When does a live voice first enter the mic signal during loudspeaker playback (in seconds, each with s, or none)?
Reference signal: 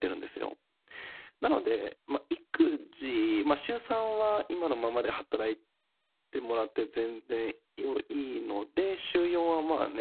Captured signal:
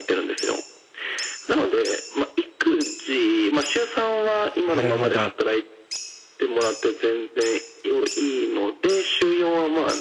4.7 s